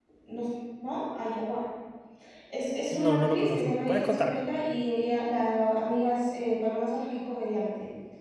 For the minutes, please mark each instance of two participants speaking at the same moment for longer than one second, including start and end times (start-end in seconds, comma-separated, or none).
2.9-4.4